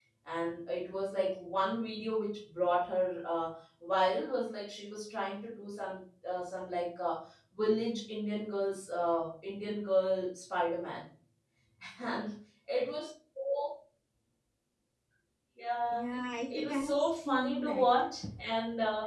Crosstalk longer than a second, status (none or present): present